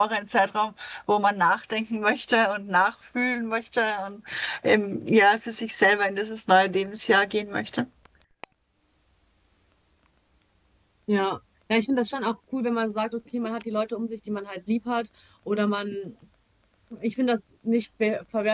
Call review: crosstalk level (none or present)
none